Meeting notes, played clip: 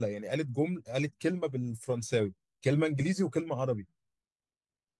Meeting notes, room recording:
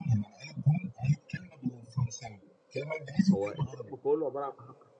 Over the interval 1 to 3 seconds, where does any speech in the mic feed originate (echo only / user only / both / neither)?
echo only